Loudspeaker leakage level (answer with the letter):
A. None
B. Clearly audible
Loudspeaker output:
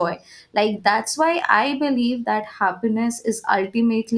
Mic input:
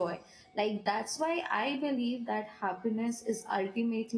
B